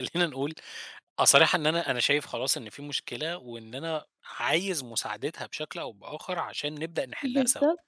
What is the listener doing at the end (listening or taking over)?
taking over